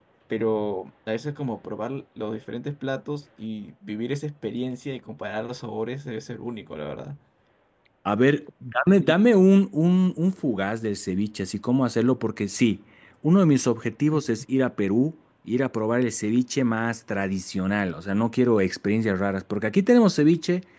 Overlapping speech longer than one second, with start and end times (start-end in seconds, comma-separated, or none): none